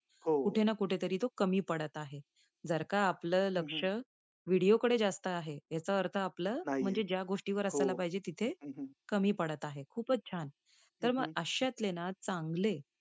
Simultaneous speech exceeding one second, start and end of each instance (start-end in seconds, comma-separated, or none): none